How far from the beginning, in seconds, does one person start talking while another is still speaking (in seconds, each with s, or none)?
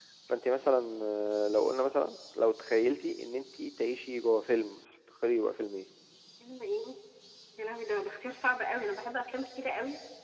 none